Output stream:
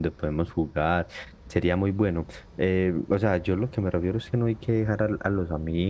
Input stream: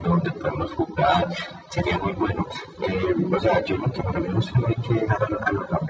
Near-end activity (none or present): none